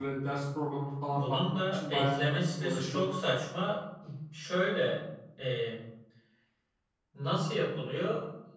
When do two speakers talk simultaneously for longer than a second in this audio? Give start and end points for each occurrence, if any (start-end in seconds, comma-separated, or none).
1.1-3.0